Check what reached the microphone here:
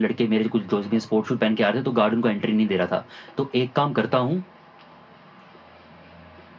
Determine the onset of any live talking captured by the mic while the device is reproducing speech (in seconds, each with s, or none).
none